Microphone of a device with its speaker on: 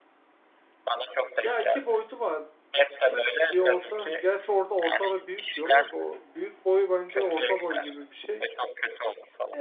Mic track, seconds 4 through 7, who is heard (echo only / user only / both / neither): both